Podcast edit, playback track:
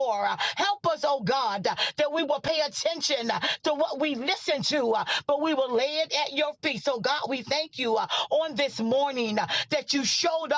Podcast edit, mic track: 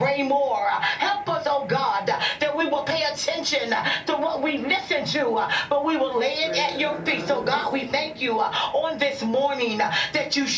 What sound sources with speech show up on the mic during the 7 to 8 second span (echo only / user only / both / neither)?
both